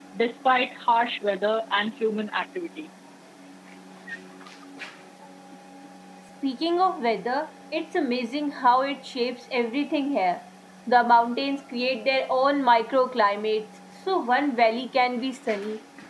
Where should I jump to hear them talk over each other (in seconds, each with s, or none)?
none